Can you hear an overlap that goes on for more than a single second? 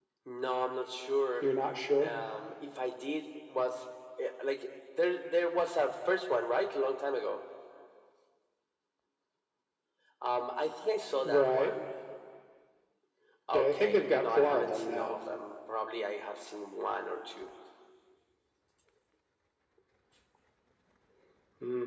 Yes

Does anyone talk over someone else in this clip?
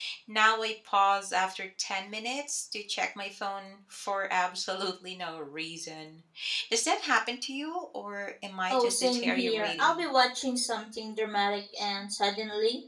Yes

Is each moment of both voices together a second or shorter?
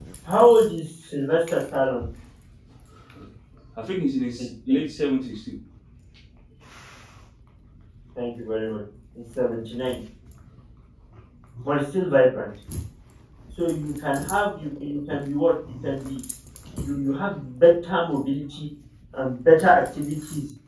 Yes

